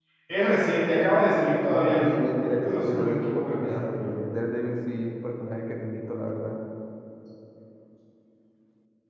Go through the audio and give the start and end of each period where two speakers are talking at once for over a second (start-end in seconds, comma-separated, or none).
1.7-4.1